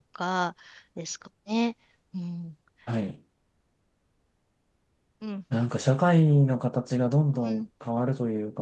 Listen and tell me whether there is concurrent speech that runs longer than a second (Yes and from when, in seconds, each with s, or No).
No